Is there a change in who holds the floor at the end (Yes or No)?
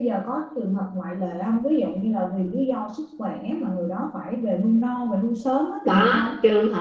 Yes